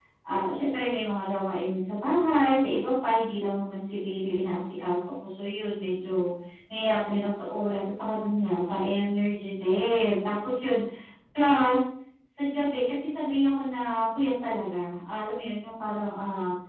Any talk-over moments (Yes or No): No